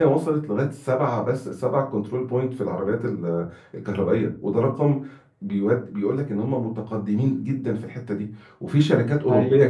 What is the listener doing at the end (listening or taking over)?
listening